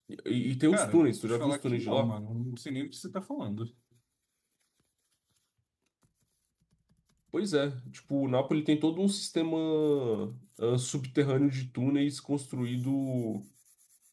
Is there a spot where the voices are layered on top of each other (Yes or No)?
Yes